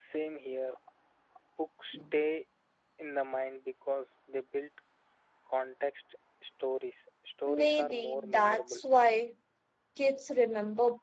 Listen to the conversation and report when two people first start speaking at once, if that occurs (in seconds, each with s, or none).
7.5 s